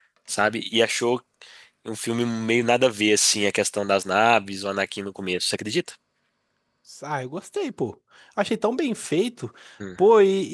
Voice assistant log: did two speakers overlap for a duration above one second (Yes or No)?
No